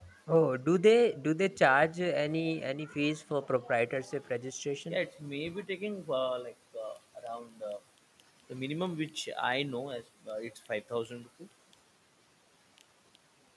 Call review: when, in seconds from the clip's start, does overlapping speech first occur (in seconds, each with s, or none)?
none